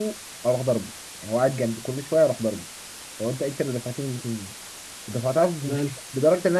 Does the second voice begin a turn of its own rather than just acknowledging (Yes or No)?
No